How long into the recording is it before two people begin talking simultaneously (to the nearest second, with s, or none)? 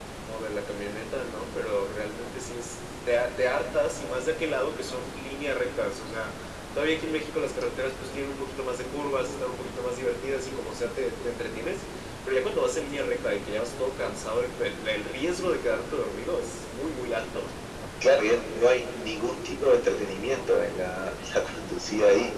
none